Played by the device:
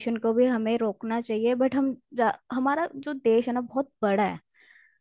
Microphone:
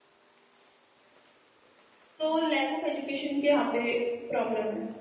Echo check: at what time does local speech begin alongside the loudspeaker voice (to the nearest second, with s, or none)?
2 s